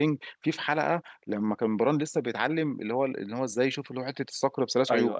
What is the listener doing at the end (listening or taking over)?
listening